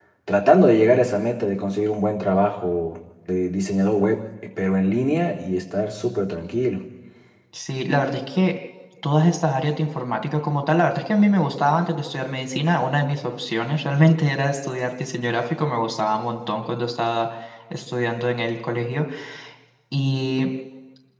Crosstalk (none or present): none